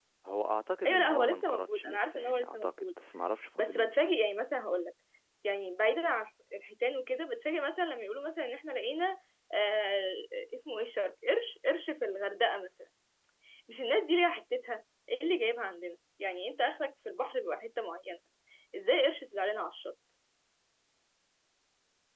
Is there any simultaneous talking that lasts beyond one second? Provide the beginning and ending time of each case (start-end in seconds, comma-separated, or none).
0.8-2.9